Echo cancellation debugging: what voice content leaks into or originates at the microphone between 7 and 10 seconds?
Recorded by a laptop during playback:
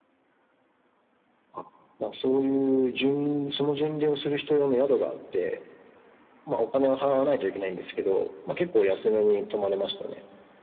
echo only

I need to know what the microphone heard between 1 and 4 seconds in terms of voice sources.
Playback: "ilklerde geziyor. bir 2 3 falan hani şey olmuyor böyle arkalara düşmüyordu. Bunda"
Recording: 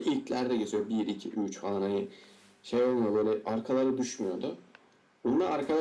echo only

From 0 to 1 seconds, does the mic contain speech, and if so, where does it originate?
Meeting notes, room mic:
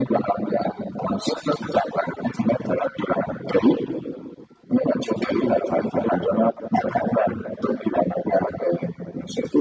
echo only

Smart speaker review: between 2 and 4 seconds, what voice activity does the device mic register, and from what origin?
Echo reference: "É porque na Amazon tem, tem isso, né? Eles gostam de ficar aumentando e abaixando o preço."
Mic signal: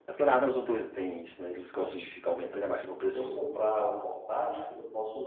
both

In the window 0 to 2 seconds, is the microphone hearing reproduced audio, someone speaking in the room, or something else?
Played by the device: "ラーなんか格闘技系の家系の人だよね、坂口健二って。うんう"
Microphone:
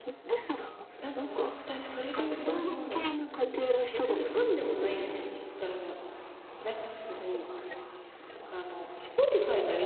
both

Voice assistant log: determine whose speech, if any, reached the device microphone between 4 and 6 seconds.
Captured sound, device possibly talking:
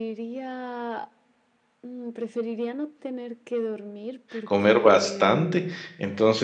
both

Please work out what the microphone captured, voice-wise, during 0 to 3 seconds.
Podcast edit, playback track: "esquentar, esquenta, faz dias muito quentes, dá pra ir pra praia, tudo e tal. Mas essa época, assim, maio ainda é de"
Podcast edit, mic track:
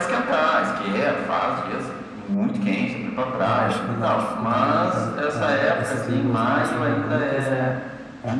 echo only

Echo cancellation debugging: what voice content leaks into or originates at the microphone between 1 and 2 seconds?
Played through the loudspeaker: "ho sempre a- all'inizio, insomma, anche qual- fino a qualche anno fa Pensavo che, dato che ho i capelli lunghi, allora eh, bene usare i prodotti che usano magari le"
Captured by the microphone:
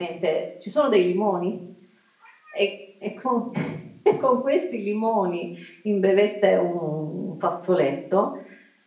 user only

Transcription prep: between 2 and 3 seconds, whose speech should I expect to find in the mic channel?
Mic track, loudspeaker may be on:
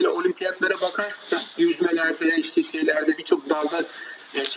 echo only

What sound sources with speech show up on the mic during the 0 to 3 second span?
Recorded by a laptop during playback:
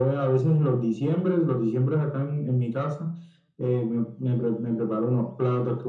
echo only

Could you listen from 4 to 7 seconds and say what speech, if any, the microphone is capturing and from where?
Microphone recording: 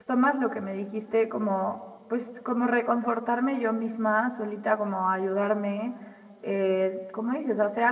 user only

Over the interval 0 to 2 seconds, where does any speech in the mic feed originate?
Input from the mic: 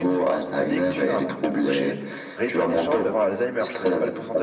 echo only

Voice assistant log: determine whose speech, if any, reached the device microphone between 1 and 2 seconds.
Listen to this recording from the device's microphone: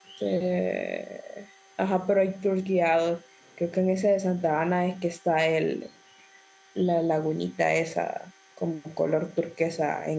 user only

